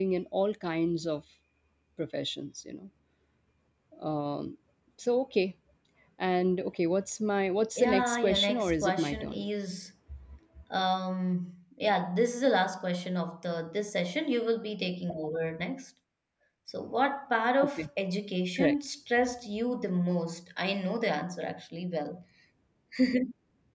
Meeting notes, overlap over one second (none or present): present